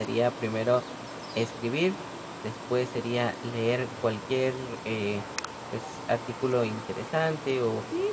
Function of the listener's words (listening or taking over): taking over